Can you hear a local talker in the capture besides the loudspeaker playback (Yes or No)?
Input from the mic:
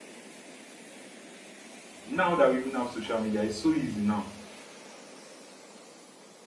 Yes